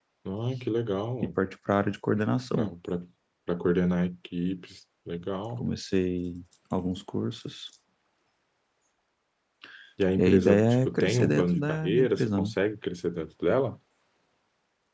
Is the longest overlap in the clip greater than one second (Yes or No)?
Yes